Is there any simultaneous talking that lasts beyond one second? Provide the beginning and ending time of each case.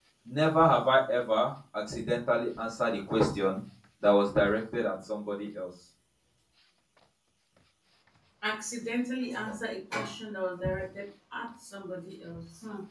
none

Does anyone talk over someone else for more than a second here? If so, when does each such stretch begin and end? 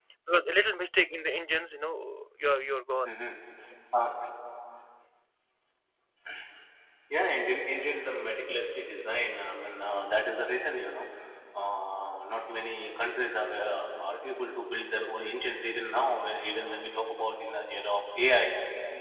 none

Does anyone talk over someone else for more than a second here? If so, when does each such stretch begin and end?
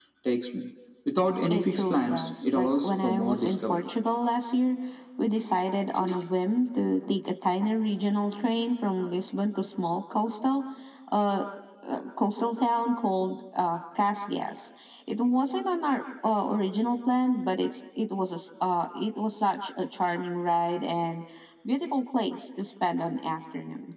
1.5-3.9

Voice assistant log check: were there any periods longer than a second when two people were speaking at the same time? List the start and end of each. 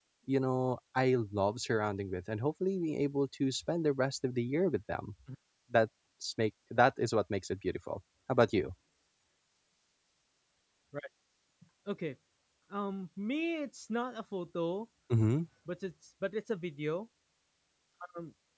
none

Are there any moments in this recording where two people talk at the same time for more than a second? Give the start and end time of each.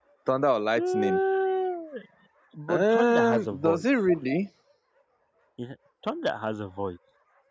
2.7-4.1

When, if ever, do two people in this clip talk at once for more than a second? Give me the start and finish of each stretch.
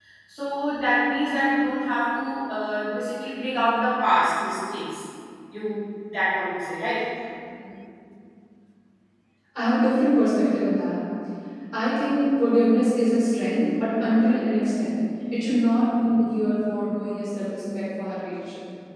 none

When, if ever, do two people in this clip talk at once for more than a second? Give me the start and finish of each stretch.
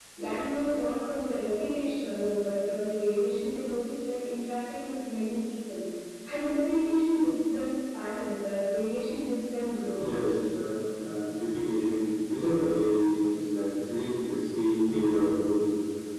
none

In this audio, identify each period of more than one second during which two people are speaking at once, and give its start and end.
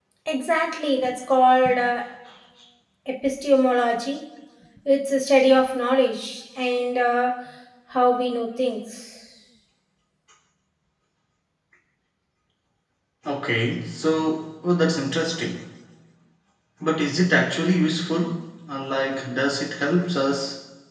none

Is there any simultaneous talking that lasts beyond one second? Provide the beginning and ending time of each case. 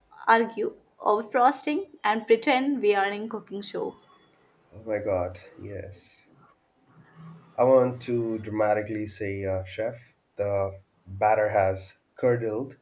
none

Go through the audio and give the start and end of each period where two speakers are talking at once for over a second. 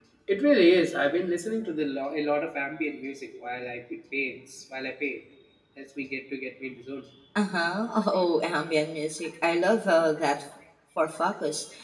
none

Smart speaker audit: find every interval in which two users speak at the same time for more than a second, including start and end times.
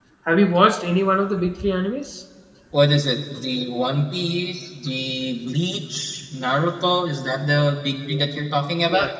none

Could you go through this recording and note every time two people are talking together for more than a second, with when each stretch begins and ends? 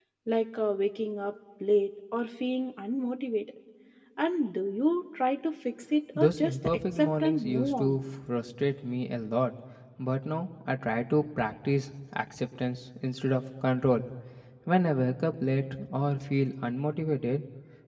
6.2-8.0

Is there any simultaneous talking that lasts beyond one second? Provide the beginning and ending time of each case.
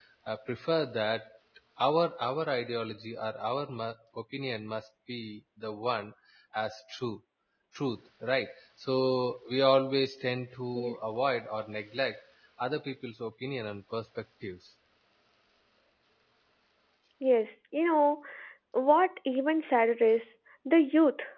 none

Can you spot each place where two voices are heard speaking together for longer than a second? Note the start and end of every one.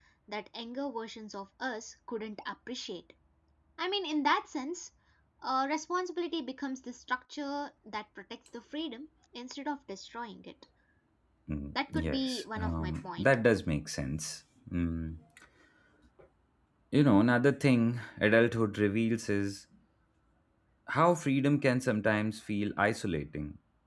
11.9-13.3

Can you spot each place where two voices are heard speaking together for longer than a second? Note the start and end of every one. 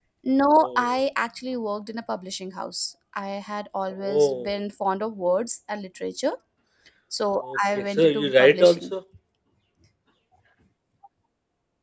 7.4-8.8

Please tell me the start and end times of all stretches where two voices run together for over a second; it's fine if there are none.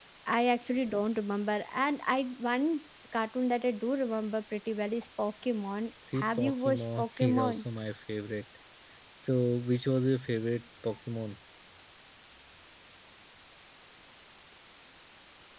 6.1-7.6

